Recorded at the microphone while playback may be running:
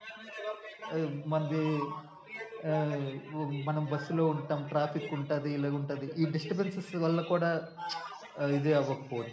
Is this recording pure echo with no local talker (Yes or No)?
No